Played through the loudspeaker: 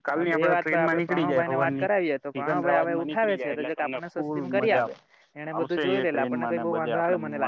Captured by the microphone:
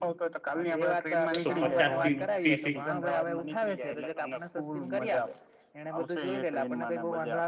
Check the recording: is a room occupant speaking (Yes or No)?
Yes